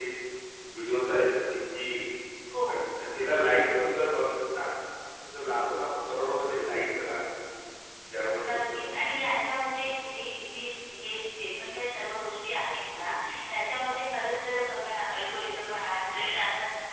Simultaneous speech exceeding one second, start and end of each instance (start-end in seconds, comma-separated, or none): none